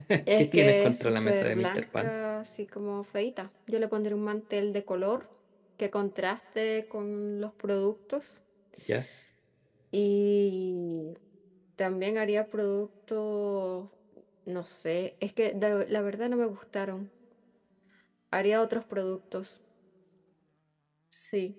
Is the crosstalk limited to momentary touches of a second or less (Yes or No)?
No